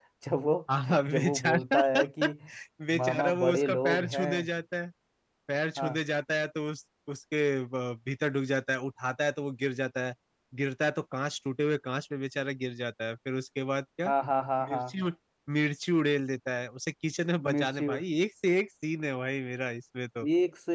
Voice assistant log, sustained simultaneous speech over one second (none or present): present